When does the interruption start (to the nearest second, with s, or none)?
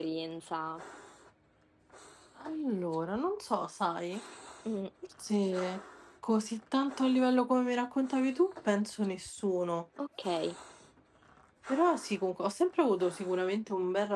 none